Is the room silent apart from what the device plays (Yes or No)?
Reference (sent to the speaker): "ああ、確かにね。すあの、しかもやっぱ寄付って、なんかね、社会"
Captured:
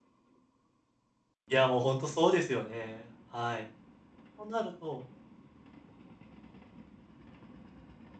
No